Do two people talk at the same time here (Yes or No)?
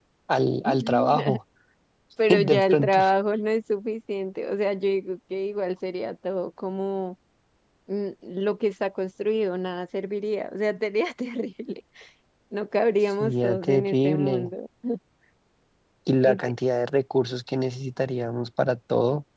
Yes